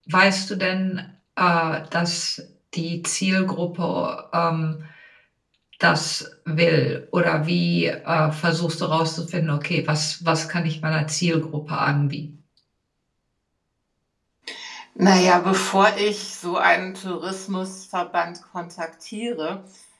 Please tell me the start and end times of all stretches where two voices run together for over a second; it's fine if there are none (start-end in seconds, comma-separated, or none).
none